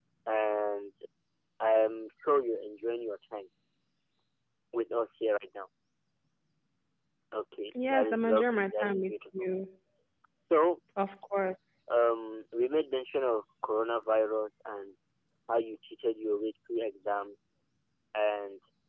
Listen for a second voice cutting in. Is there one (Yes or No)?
Yes